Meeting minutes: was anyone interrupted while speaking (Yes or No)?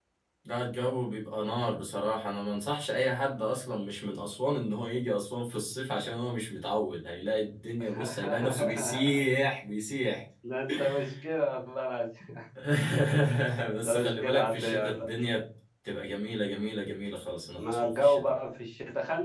Yes